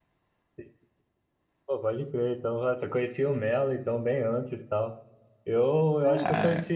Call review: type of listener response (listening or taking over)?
listening